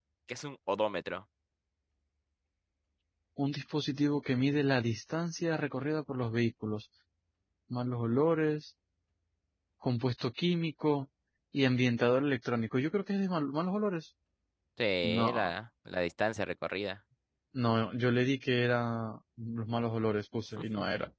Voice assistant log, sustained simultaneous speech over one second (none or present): none